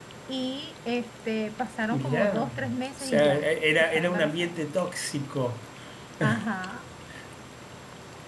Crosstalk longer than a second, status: present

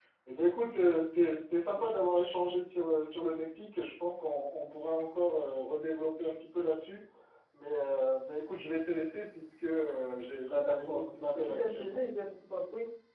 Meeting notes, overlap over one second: present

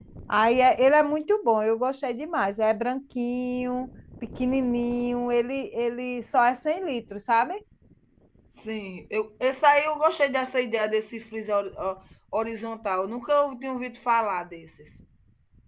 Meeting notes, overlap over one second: none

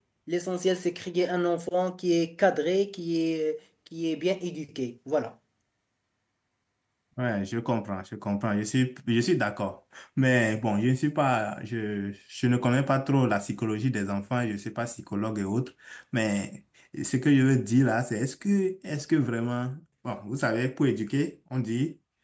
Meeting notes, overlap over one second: none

